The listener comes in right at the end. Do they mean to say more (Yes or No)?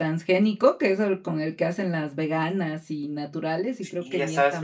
Yes